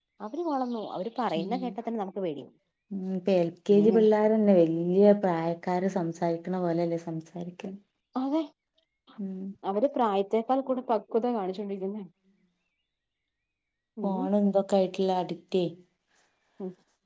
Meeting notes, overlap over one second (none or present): none